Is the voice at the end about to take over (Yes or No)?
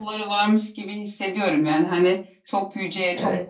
No